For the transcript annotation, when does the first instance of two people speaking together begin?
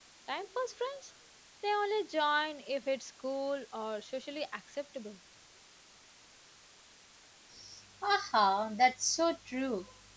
none

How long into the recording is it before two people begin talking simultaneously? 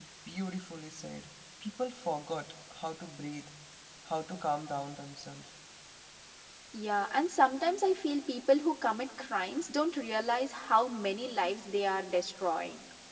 none

